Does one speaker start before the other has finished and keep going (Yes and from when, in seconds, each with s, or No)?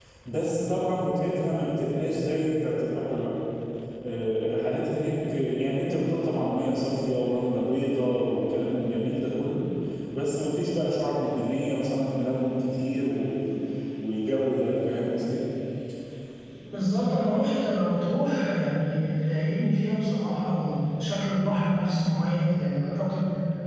No